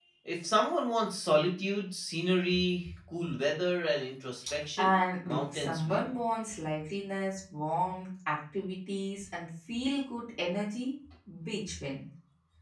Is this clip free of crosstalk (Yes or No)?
No